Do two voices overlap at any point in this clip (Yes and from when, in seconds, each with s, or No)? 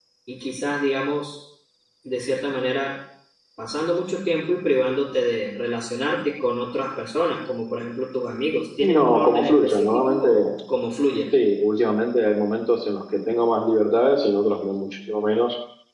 Yes, from 8.8 s